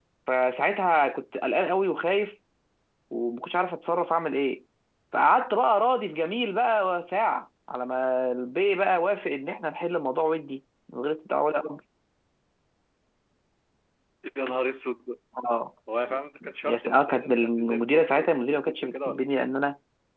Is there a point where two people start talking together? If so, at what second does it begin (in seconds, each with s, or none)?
16.6 s